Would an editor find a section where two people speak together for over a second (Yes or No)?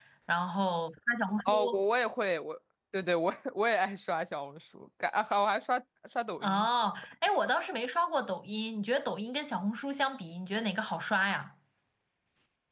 No